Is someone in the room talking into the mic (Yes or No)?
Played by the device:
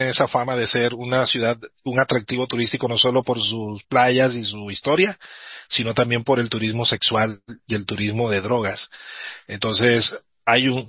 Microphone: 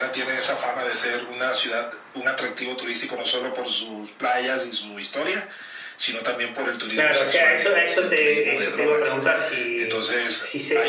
Yes